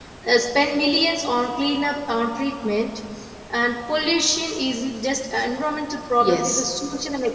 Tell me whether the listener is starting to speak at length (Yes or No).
No